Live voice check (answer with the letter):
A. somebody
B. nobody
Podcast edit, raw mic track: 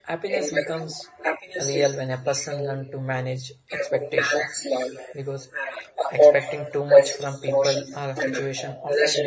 A